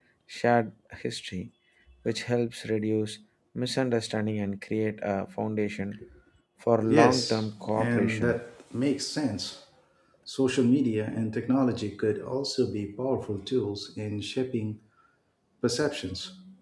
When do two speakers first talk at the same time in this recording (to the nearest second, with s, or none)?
7 s